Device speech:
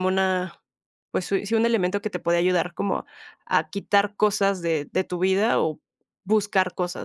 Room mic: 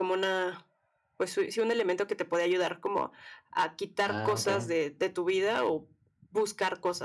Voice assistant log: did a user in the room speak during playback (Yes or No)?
Yes